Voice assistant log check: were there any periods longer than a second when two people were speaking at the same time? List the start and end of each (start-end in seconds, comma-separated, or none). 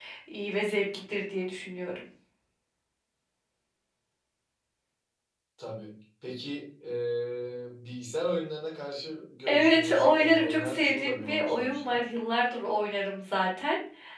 9.5-12.0